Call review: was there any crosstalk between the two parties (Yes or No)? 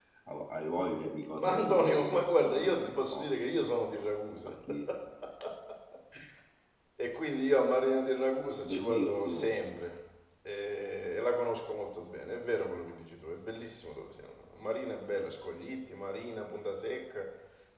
Yes